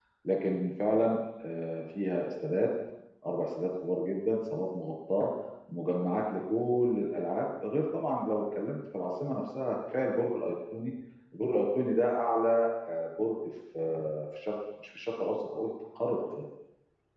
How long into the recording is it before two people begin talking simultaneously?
none

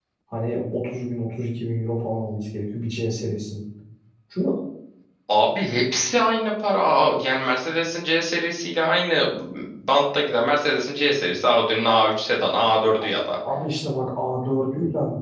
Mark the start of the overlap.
none

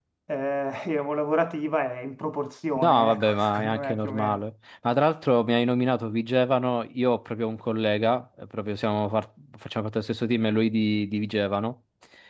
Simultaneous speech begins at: 2.8 s

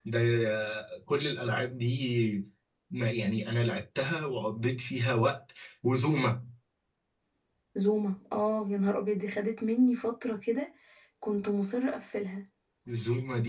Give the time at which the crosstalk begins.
none

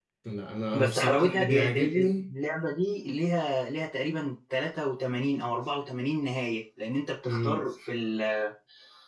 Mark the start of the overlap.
0.8 s

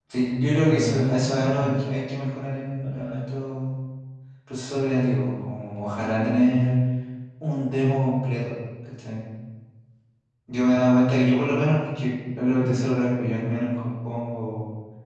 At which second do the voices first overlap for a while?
0.7 s

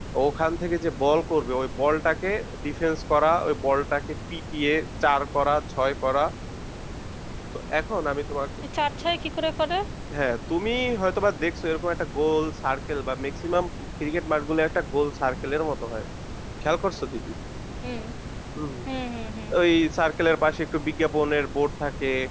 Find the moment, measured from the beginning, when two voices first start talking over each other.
none

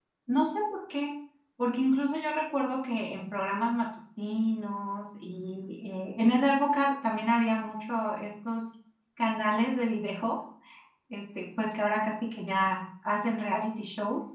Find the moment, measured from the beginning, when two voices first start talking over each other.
none

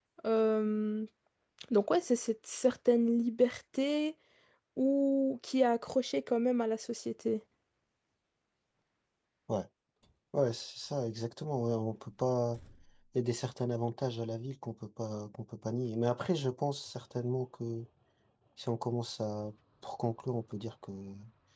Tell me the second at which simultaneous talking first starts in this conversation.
none

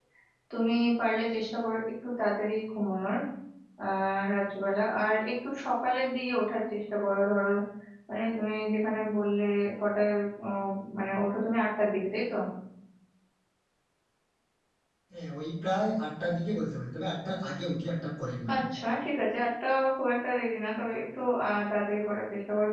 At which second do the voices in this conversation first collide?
none

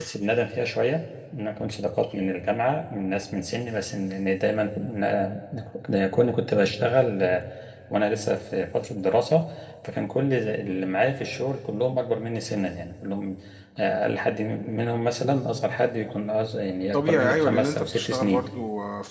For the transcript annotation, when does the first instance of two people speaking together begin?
16.9 s

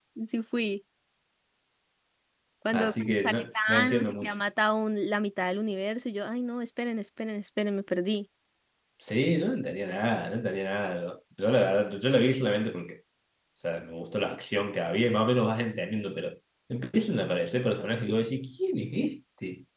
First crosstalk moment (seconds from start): 2.7 s

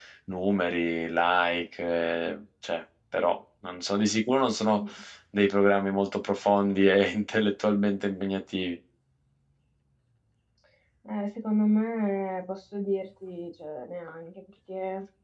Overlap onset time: none

